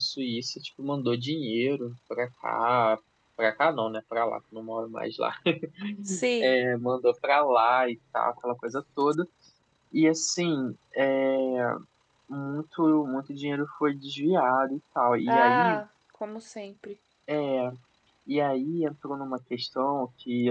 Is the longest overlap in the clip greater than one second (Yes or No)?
No